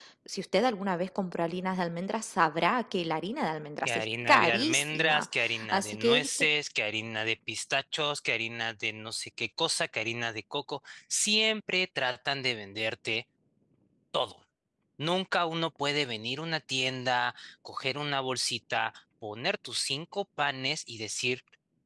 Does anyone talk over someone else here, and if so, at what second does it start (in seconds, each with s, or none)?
3.9 s